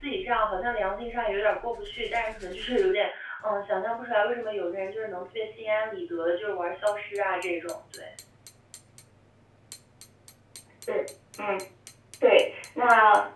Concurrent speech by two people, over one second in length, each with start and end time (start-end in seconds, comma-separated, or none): none